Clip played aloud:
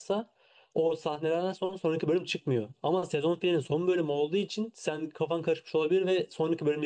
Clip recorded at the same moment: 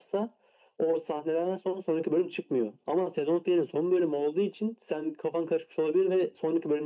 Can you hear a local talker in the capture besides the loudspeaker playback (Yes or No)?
No